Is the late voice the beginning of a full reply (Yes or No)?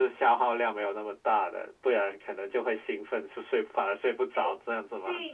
Yes